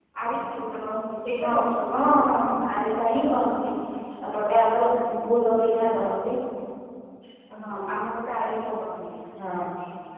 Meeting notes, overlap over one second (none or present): none